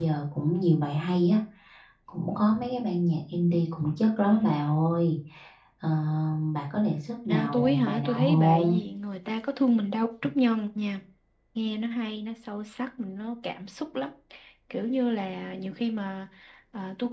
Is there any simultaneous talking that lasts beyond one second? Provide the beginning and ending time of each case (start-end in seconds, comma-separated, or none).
7.3-8.8